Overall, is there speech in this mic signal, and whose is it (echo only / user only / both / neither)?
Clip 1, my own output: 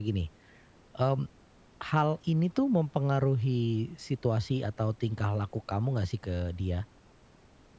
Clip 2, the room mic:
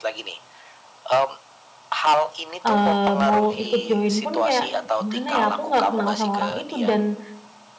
both